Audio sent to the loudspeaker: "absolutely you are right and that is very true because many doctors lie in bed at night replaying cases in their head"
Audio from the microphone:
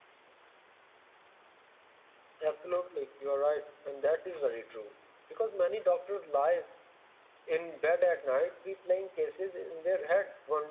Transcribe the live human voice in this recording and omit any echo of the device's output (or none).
none